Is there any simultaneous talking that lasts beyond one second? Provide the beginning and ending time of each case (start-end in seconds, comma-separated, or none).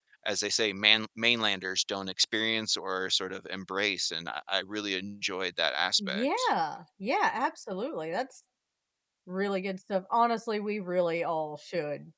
none